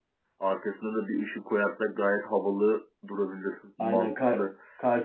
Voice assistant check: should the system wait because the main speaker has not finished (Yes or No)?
No